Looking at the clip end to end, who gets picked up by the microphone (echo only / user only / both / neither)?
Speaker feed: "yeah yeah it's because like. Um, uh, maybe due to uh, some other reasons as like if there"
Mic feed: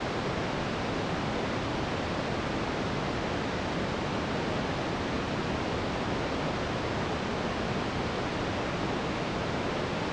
neither